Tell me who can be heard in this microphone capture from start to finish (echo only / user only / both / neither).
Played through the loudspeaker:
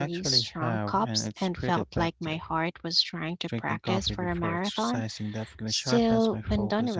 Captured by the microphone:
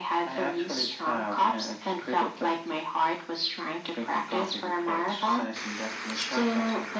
echo only